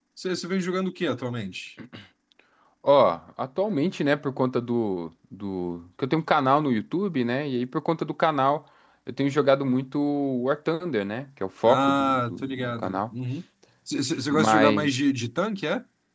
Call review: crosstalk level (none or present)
present